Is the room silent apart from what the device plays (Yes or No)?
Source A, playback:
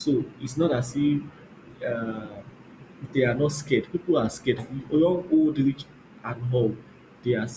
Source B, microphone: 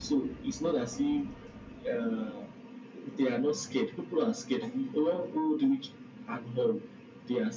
Yes